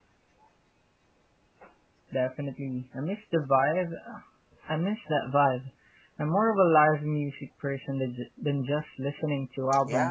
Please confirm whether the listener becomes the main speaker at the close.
Yes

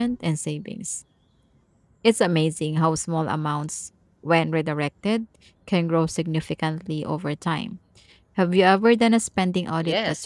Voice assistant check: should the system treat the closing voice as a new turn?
Yes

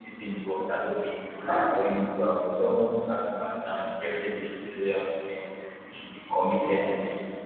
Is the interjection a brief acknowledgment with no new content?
Yes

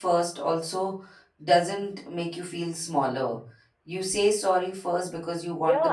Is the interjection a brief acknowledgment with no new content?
No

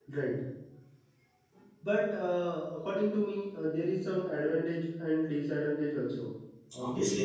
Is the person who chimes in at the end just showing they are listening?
No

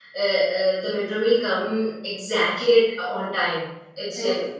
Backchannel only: Yes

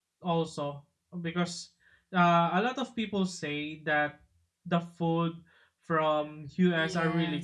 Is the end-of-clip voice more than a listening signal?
Yes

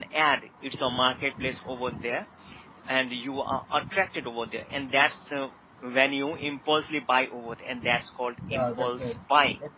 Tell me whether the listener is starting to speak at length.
Yes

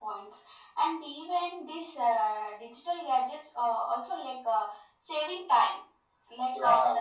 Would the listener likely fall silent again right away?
Yes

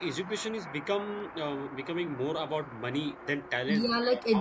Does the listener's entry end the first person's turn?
Yes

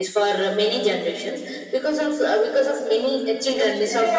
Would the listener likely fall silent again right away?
Yes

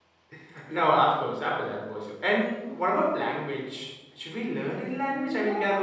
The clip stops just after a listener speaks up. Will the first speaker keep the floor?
No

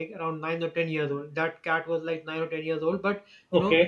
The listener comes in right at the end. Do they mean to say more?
No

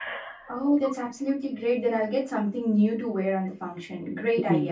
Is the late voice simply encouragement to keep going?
No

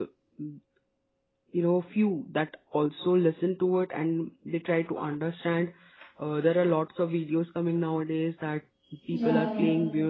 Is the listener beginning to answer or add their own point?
No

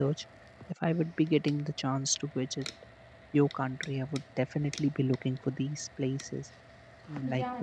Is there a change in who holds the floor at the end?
Yes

